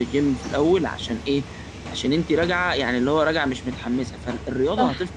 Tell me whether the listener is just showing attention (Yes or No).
Yes